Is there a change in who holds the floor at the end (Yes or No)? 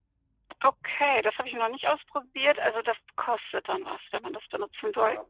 Yes